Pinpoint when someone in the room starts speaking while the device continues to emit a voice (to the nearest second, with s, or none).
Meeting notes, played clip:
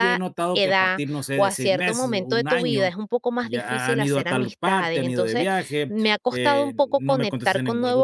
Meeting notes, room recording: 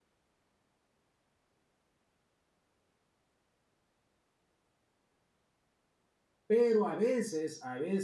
6 s